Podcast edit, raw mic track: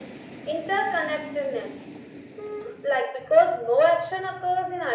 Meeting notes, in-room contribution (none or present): none